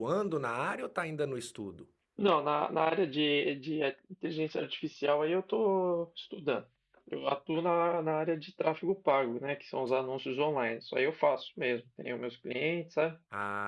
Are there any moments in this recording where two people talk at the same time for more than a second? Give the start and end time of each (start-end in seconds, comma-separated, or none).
none